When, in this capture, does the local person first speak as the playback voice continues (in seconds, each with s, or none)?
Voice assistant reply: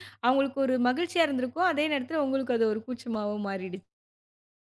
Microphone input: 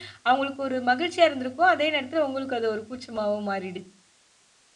none